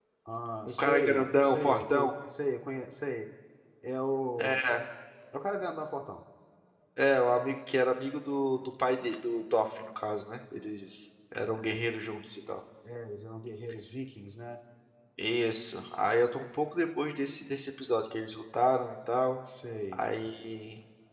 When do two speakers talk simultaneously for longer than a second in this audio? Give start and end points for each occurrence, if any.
0.6-2.1

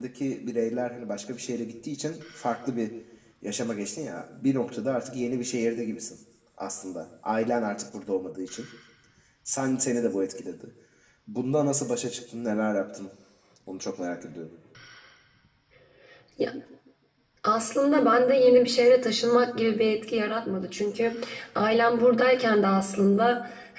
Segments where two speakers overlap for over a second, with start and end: none

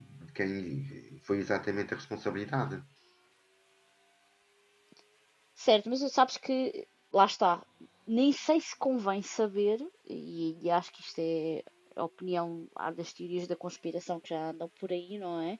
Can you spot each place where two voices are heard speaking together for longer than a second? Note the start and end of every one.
none

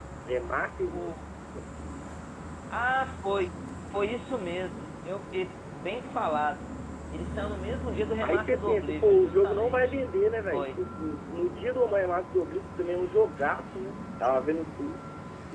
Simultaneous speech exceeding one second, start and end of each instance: 8.2-9.8

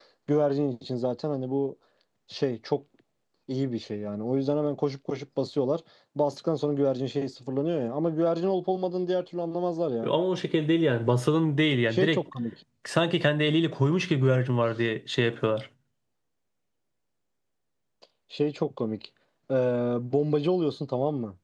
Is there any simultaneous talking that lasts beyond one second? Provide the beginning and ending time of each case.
none

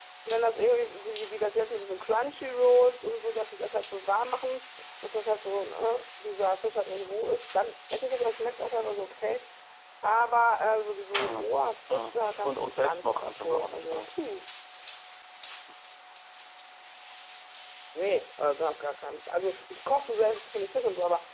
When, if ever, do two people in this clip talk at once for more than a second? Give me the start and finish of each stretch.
11.9-14.1

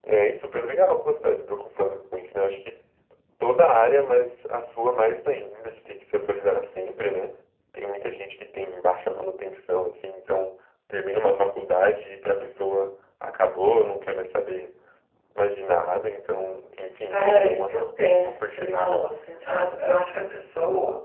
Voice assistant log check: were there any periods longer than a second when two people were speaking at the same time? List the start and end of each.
17.1-19.1

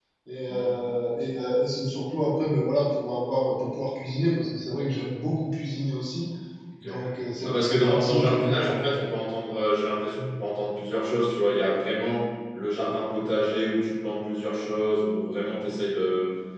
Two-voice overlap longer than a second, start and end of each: 7.5-8.7

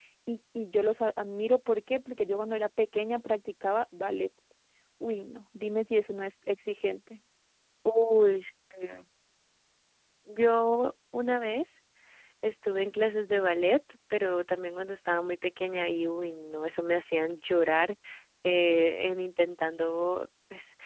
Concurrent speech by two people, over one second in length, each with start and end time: none

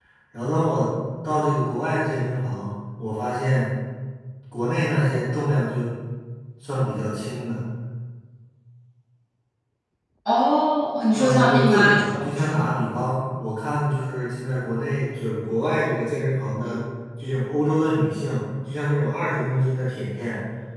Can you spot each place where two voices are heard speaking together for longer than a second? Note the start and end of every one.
11.1-12.7

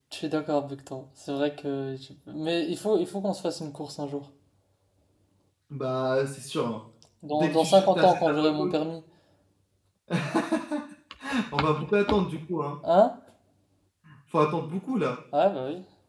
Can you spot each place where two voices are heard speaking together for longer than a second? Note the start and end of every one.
7.3-8.7

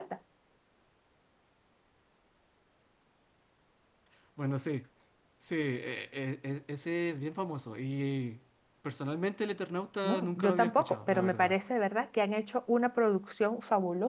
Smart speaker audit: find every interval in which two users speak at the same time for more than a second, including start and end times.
10.0-11.6

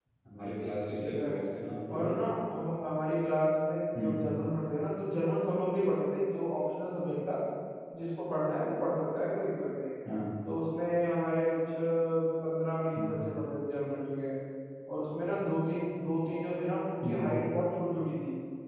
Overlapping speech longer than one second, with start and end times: none

